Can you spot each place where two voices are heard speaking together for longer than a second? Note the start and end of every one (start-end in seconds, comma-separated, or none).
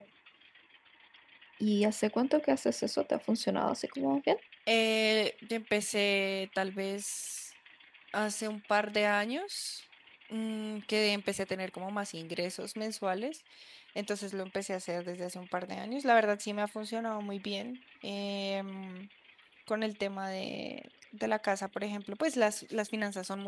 none